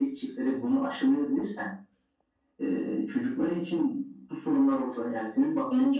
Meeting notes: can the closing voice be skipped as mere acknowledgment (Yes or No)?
No